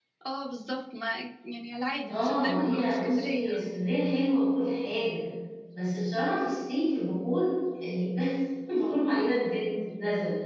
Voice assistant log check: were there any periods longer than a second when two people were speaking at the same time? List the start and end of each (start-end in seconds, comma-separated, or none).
2.1-3.5